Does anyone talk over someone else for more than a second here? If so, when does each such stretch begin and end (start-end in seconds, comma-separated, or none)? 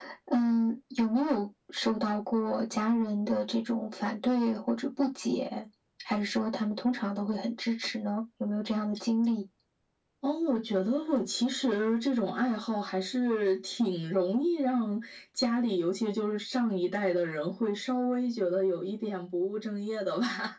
none